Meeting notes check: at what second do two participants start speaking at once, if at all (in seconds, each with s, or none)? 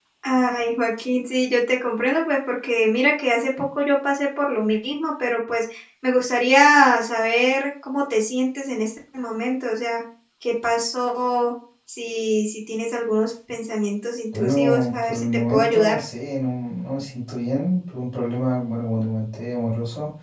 14.3 s